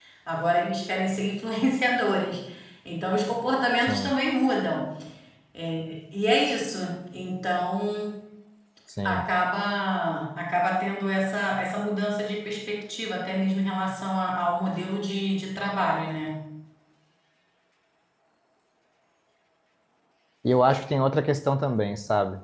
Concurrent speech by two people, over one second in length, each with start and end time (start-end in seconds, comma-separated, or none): none